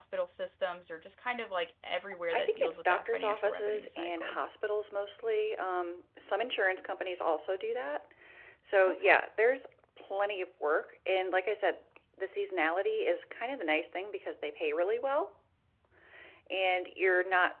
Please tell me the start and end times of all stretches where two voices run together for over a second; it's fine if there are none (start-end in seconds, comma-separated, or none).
2.3-4.4